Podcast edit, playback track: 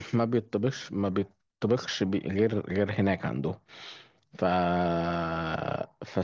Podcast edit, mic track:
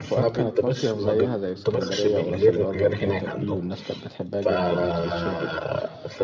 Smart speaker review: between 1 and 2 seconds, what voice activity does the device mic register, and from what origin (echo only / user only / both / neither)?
both